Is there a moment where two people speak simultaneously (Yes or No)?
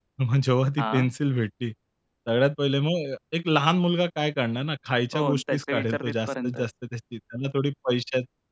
Yes